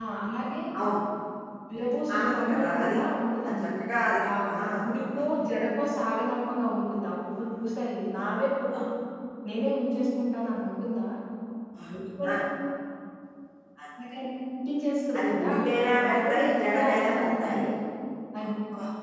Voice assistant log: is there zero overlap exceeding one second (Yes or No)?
No